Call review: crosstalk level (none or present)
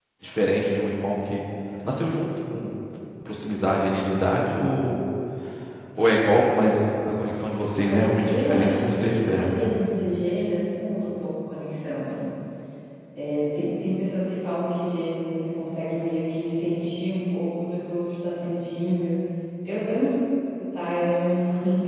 present